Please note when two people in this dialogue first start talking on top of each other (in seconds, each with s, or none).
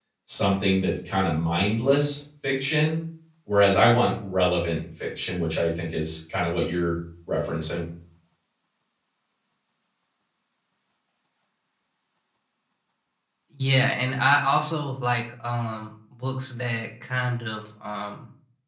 none